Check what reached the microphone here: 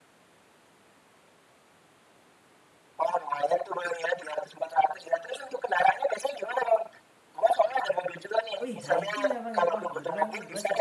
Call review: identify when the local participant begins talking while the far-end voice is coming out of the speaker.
8.6 s

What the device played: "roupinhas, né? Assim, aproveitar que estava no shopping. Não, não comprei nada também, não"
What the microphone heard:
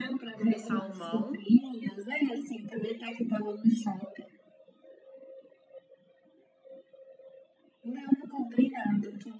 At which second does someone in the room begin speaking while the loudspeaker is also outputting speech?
0.3 s

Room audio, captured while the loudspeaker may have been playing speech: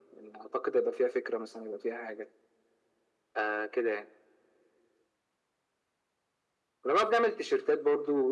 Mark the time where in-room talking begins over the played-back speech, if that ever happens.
none

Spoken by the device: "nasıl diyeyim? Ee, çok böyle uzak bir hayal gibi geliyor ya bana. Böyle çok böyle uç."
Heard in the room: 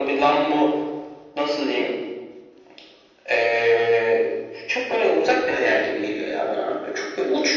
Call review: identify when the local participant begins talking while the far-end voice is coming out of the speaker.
none

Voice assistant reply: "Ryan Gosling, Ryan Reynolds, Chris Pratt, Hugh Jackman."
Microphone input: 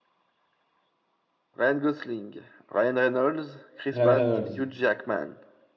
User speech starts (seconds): 3.9 s

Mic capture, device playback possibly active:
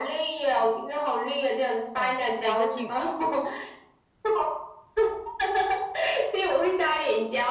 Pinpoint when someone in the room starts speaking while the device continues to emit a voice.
1.9 s

